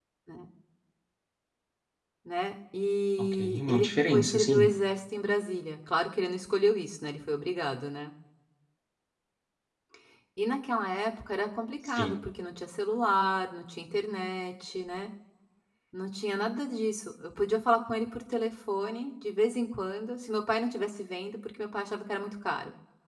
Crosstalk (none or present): present